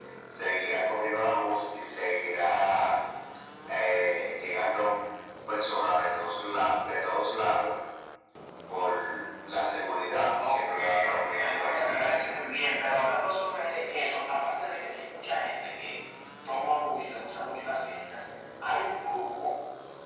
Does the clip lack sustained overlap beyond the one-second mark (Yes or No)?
No